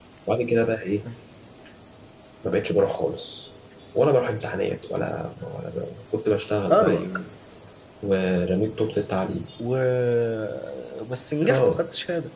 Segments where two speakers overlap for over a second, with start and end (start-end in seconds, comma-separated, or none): none